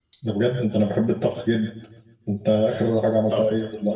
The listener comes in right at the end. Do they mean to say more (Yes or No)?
No